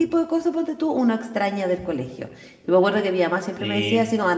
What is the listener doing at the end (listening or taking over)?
listening